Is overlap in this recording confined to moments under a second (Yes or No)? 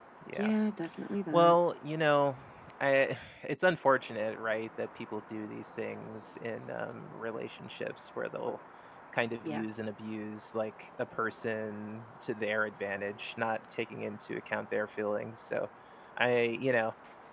Yes